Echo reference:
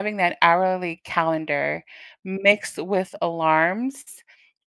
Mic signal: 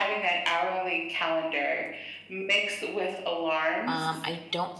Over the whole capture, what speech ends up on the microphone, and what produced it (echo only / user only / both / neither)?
both